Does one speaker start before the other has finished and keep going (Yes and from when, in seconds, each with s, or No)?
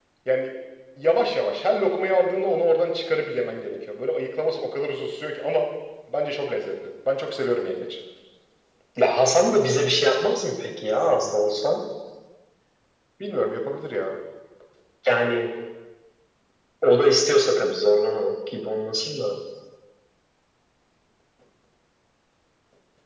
No